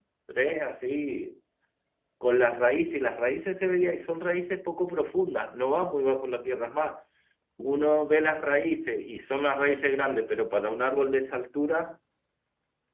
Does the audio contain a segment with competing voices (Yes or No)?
No